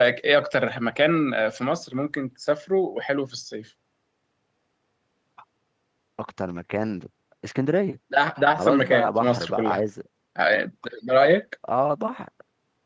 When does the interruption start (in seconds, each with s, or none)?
8.6 s